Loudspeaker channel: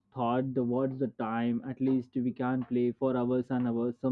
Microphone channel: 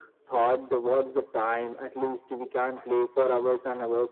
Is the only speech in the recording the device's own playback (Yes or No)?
Yes